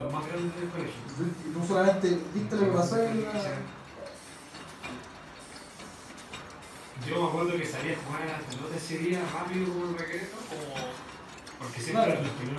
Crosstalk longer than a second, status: present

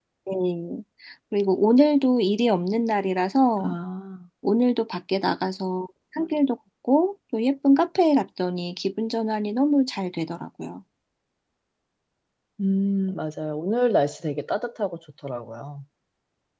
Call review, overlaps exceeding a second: none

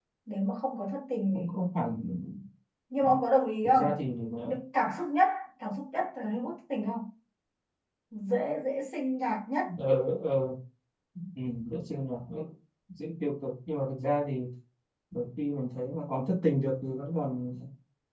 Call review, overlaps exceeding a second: none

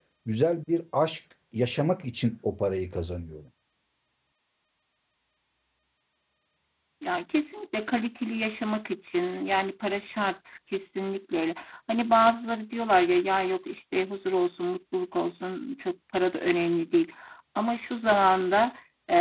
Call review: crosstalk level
none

